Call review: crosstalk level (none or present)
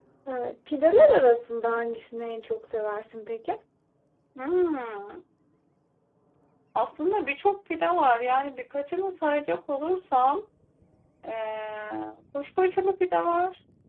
none